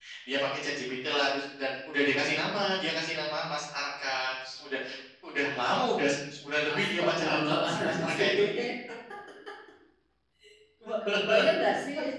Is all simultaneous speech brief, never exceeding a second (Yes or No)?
No